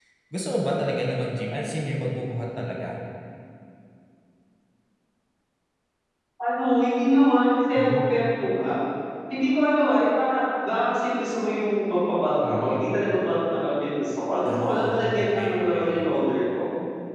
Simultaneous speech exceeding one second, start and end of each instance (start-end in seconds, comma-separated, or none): 14.4-16.1